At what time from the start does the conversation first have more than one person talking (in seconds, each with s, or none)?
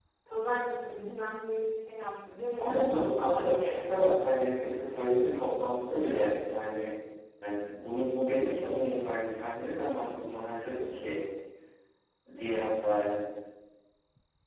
2.6 s